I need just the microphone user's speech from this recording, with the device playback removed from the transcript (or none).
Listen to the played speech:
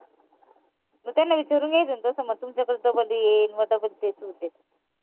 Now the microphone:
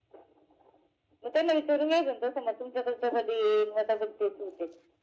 none